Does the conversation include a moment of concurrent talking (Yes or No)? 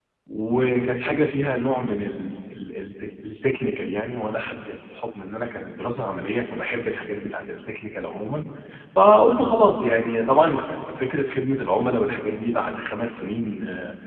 No